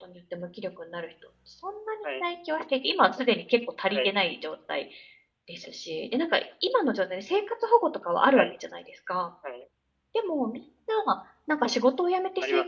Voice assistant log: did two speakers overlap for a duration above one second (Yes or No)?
No